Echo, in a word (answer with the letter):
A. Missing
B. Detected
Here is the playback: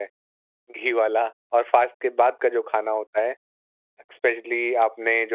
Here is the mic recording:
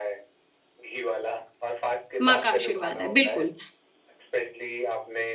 B